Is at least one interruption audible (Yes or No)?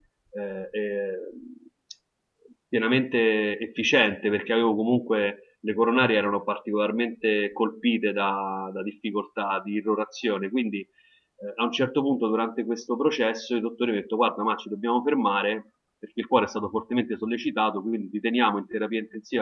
No